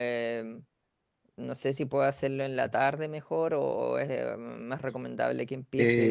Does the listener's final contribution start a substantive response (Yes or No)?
Yes